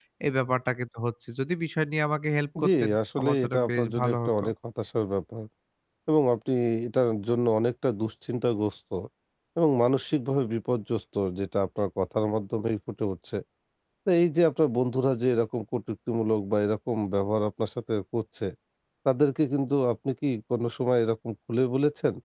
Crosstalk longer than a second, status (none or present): present